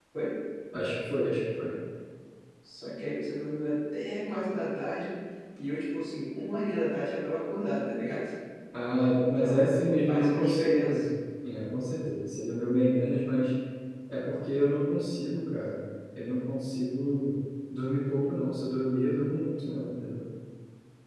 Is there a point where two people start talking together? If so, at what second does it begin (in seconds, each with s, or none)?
9.4 s